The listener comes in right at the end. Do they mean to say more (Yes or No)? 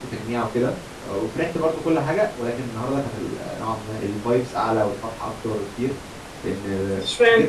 No